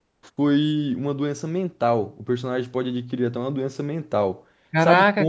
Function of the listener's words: taking over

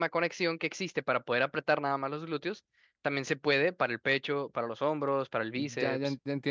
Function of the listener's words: taking over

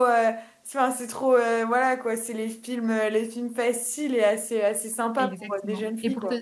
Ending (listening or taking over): taking over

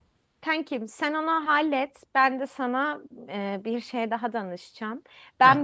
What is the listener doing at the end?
listening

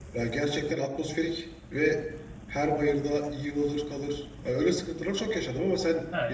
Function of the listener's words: taking over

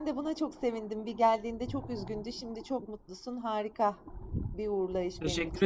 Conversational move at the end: taking over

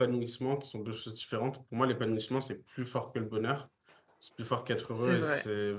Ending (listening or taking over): listening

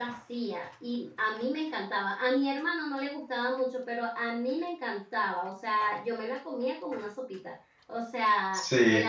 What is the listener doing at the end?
listening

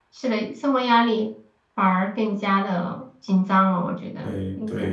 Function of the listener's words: taking over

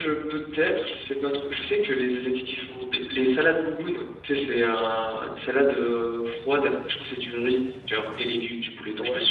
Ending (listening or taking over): taking over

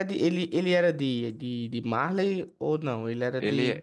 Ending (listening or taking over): taking over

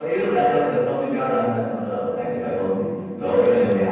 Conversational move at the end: listening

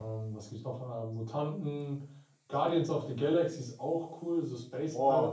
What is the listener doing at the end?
taking over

